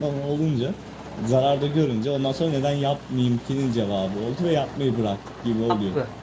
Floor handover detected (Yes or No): Yes